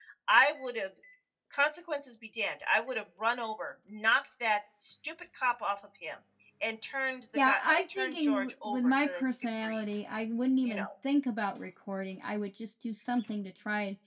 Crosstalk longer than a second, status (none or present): present